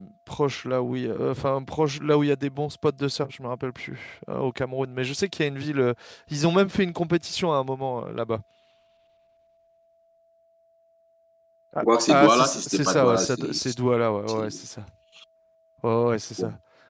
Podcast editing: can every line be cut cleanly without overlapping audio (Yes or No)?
No